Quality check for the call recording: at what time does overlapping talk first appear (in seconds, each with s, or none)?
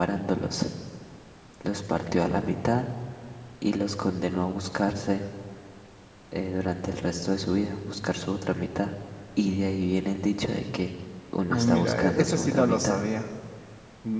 11.5 s